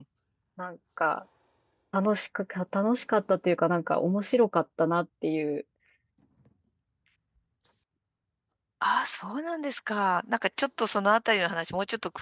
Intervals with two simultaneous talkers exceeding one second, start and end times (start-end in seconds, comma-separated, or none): none